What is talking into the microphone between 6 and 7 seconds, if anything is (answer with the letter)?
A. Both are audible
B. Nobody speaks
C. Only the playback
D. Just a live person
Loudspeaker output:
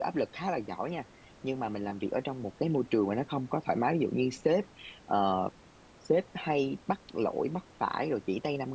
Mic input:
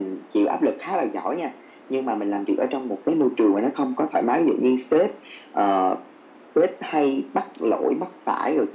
C